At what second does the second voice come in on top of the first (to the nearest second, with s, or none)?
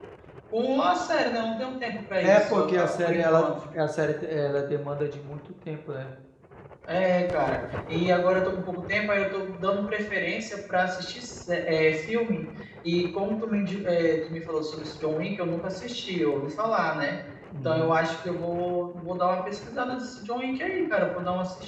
2 s